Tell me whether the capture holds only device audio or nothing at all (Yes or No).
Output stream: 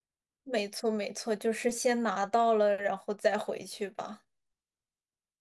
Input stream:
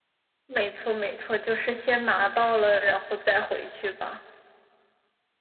Yes